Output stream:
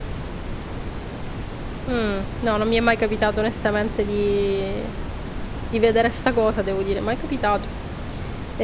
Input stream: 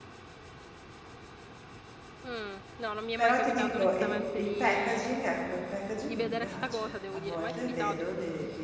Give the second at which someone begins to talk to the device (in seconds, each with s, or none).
3.1 s